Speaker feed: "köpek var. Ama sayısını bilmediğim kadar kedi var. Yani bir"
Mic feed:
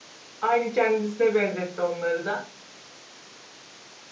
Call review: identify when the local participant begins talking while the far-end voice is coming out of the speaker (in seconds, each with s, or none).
0.4 s